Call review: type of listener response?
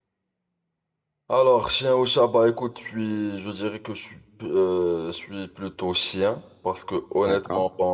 listening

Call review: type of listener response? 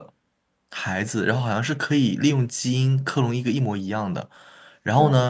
listening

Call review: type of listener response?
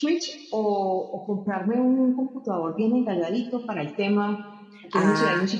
listening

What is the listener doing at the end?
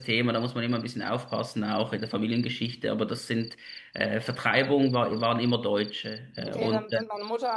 taking over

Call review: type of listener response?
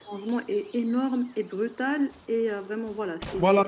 taking over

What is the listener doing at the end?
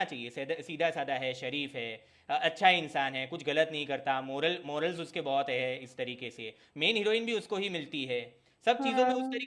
listening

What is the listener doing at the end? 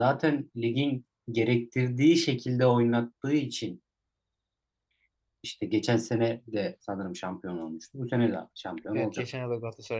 taking over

